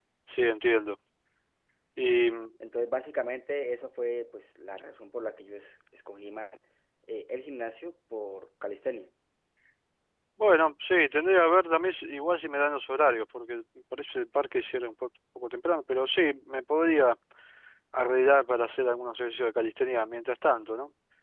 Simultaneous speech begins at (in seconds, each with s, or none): none